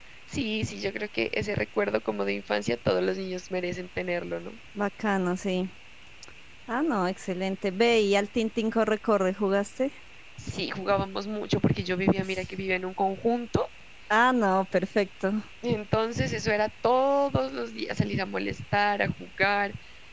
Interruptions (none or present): none